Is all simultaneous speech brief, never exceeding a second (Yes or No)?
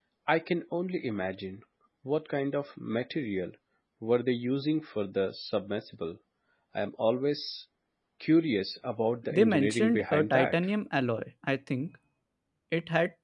No